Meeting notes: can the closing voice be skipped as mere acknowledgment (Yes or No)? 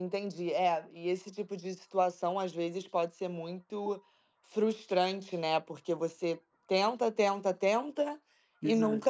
Yes